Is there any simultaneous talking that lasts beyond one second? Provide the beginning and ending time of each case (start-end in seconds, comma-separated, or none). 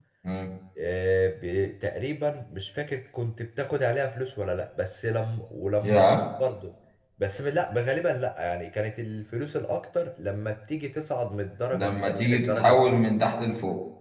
11.7-13.0